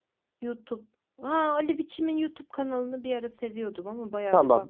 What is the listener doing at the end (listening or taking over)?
taking over